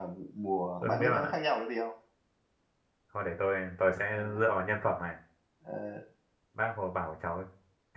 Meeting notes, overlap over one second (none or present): none